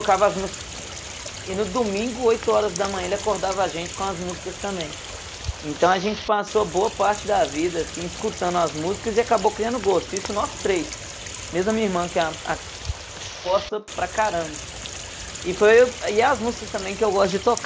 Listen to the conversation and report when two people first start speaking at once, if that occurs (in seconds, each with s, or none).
none